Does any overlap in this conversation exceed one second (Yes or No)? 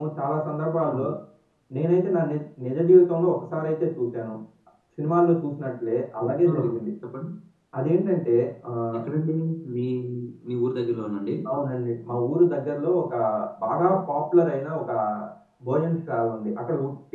No